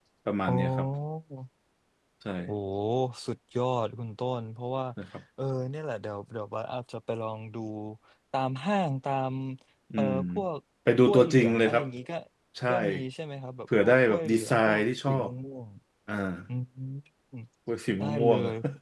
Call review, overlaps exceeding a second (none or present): present